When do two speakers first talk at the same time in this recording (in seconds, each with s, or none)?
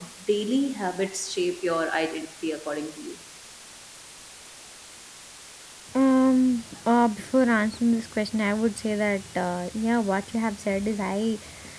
none